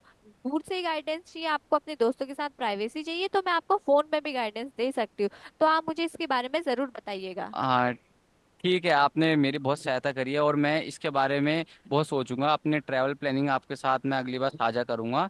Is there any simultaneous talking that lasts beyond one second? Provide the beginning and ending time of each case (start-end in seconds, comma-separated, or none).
none